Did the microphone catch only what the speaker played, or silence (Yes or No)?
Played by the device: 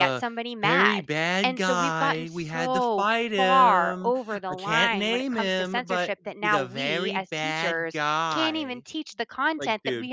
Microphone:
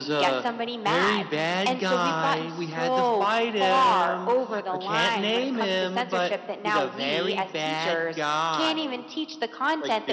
Yes